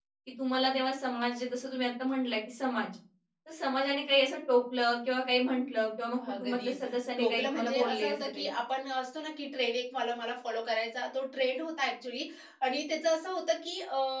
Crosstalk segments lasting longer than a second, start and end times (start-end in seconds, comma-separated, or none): 7.2-8.5